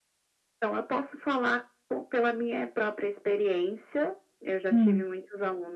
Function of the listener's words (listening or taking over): listening